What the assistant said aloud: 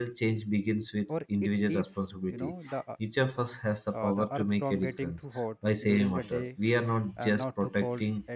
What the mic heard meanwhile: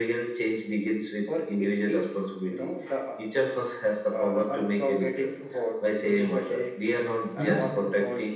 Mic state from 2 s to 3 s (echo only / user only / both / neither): echo only